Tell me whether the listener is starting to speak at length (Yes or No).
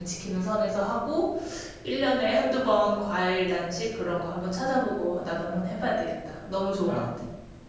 Yes